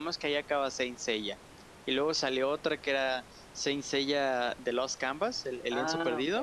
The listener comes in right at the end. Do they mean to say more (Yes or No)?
Yes